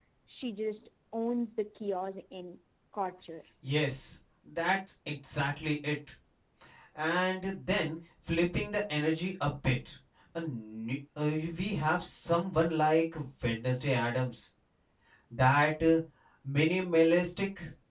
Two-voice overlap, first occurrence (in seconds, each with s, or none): none